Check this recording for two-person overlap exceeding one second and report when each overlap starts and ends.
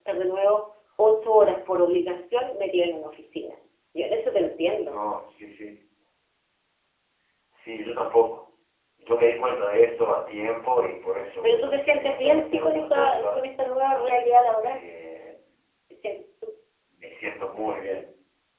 11.4-13.5

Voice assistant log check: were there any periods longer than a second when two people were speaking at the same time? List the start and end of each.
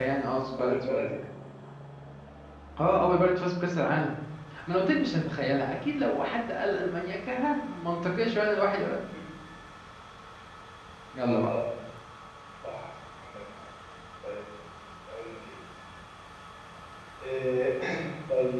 none

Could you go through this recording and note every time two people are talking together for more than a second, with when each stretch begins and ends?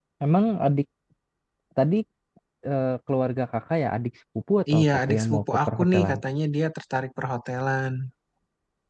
4.7-6.2

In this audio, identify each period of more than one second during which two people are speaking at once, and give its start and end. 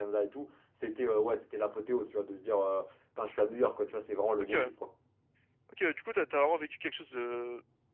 none

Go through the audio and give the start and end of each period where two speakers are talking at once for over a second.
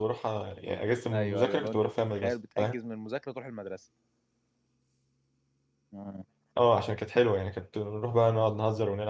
1.1-2.8

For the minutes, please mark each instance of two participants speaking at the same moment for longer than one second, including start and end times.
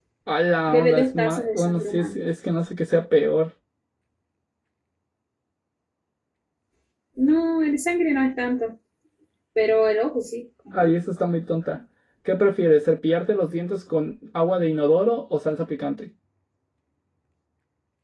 0.7-2.2

